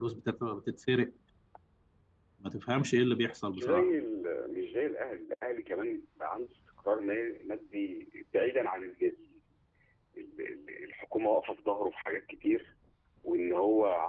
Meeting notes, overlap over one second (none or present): none